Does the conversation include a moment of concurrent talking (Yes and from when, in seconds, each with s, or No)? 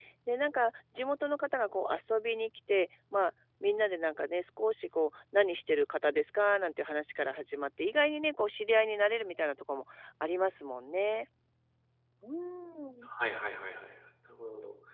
No